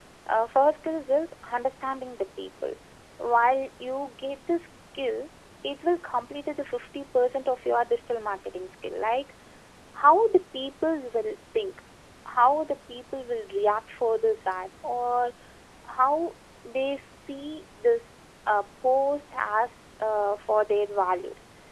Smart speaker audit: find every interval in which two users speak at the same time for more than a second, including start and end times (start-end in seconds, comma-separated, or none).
none